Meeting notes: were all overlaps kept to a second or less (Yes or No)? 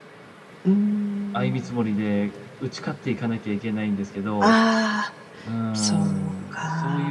No